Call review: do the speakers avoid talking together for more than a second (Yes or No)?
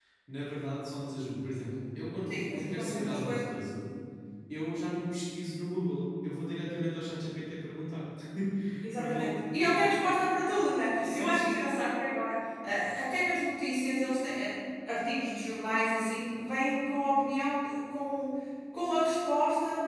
No